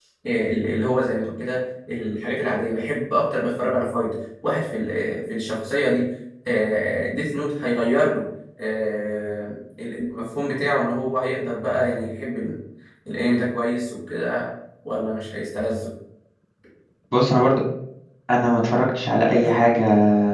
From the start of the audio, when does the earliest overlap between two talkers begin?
none

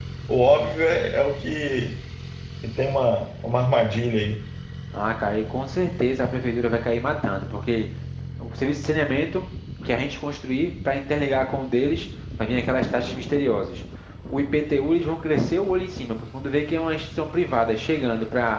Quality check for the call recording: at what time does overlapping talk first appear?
none

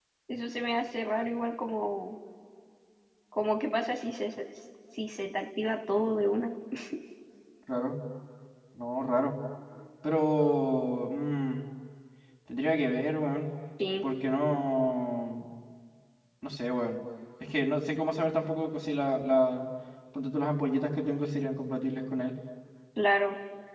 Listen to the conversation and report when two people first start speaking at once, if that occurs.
none

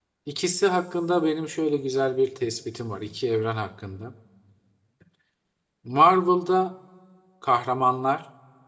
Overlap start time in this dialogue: none

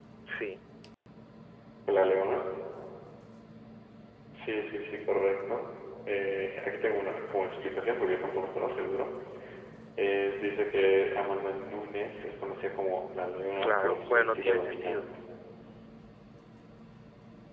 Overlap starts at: 13.6 s

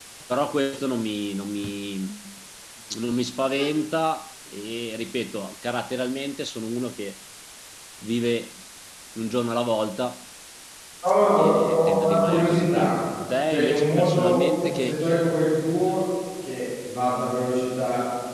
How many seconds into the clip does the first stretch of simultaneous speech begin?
11.3 s

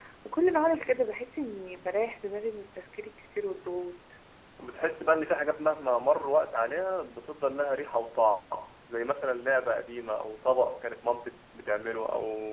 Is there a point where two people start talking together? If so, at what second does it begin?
none

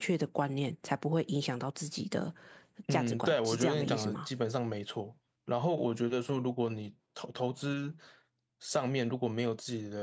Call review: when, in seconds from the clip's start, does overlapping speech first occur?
2.9 s

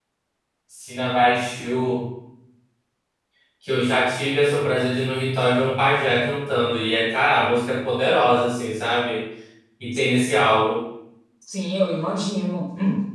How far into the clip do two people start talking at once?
none

